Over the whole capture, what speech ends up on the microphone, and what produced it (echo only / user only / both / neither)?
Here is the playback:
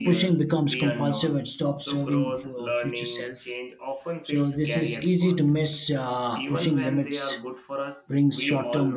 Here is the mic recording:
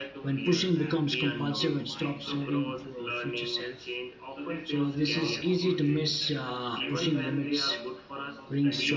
both